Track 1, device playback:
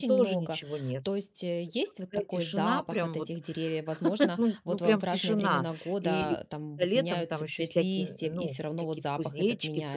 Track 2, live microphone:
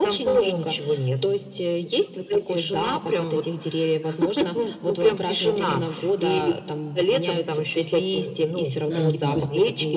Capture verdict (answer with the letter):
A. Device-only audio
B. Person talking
B